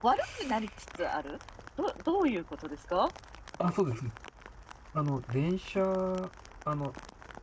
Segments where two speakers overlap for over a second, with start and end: none

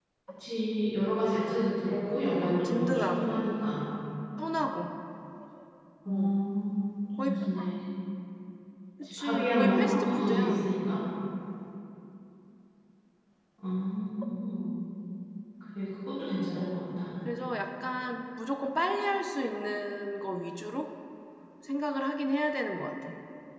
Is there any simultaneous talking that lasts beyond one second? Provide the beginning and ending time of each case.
1.9-3.5, 9.0-10.6

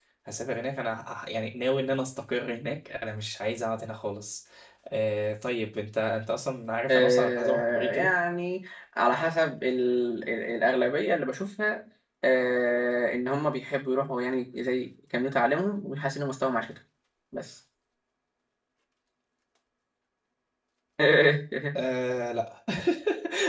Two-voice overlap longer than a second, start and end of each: 6.9-8.1

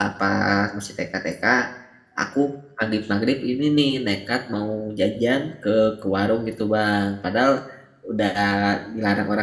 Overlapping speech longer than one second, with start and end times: none

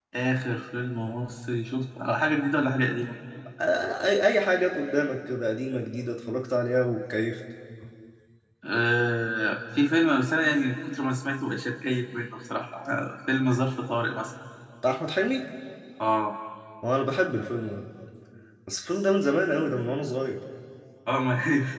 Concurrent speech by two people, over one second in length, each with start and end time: none

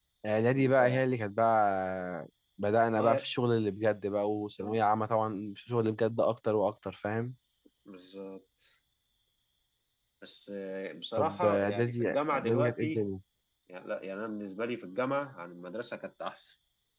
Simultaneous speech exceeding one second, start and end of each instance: 11.2-13.1

